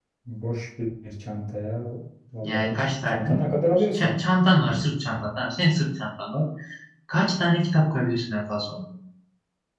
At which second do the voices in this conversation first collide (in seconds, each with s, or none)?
2.4 s